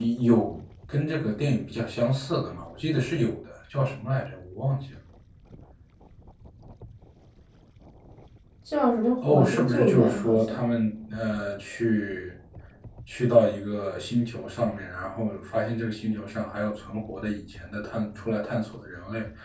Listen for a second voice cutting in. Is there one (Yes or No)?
Yes